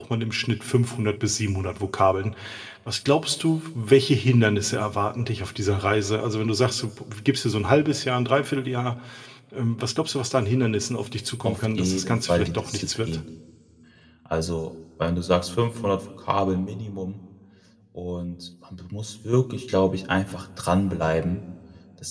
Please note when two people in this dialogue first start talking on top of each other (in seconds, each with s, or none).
11.4 s